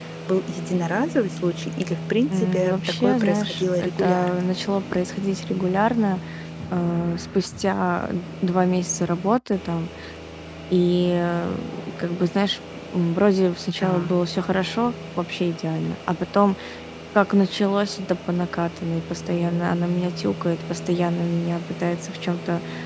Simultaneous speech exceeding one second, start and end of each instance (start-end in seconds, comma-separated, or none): 2.3-4.4